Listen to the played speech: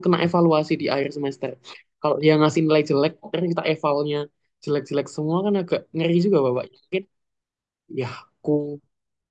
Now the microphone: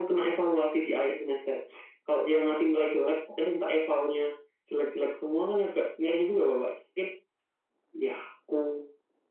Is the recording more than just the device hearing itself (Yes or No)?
No